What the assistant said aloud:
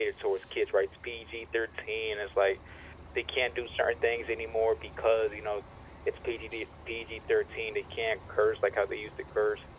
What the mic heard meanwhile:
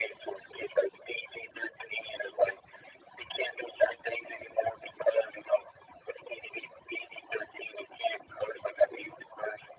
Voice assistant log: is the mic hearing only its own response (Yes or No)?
Yes